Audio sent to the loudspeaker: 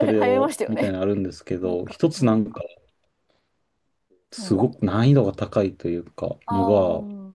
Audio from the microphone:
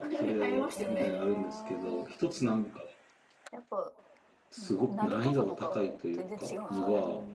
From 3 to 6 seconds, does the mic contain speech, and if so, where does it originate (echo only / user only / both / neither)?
both